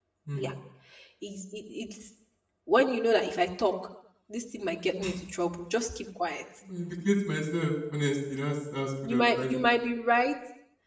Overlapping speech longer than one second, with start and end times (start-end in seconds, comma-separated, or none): none